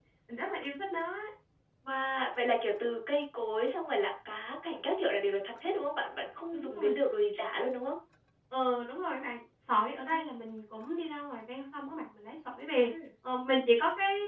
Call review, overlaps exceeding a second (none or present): none